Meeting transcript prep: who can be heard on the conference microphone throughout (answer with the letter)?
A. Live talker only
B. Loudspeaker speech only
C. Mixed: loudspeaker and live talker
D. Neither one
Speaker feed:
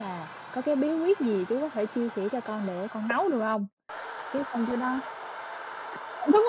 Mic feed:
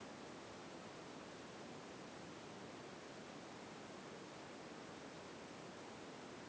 D